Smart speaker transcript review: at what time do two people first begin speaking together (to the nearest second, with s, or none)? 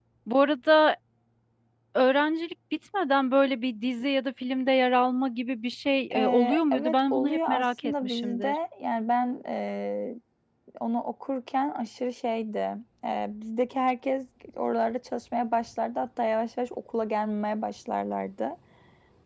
6 s